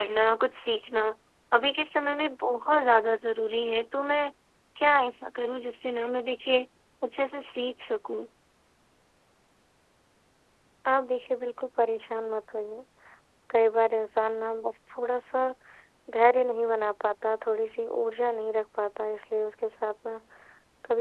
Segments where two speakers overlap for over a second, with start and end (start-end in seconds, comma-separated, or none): none